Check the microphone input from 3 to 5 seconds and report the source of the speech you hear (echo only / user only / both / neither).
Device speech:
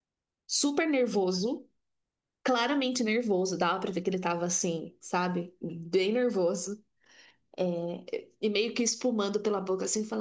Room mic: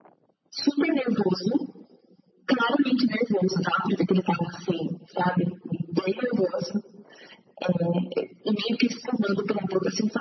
echo only